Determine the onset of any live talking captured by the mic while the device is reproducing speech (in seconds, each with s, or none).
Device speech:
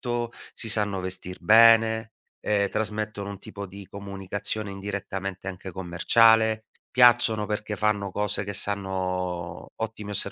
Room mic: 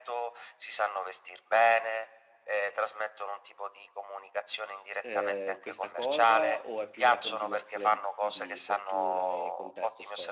5.0 s